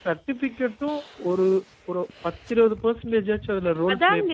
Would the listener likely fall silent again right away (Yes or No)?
No